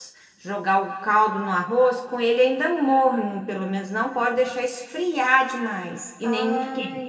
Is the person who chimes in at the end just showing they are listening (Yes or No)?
No